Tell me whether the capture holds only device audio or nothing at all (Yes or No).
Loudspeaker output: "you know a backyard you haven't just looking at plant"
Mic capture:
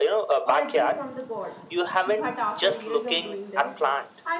No